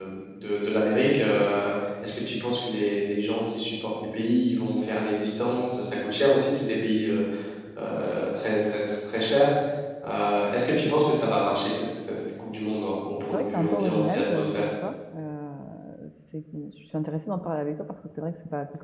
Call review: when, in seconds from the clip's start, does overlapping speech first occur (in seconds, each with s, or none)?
13.2 s